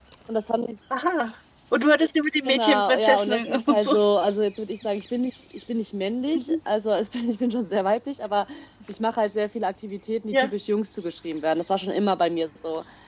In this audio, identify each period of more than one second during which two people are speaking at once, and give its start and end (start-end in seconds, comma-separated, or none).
2.5-4.0